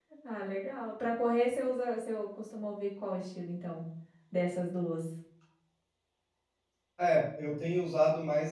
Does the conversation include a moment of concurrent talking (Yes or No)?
No